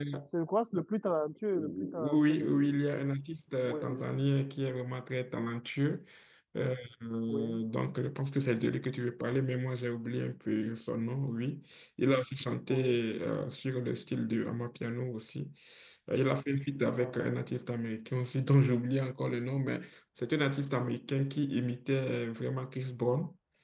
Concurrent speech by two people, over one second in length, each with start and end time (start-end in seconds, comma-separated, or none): 1.5-2.8